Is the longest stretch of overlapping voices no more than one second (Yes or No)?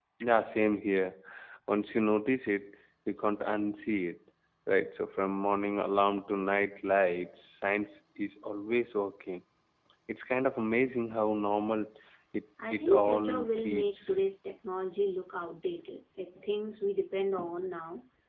No